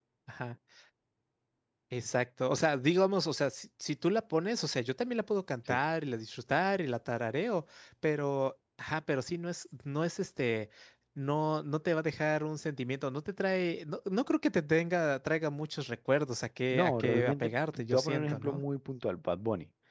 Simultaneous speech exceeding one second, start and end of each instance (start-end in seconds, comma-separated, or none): 16.7-18.6